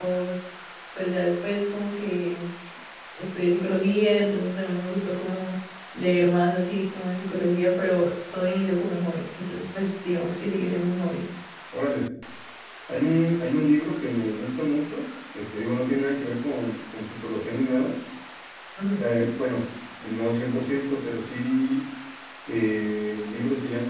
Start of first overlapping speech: none

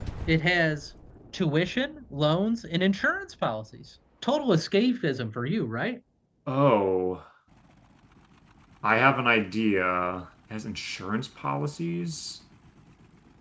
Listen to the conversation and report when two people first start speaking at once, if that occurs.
none

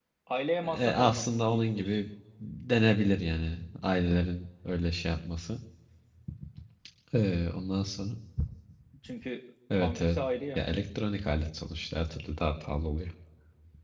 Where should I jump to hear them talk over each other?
0.6 s

